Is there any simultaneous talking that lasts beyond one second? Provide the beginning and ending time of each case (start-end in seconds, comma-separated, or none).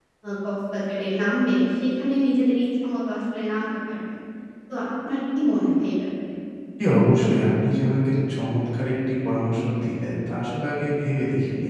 none